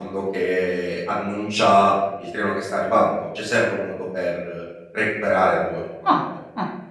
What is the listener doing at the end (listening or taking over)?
taking over